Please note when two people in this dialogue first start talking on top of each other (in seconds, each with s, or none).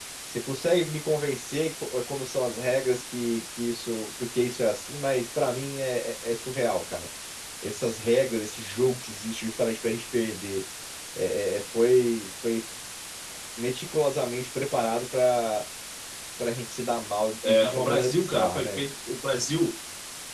17.4 s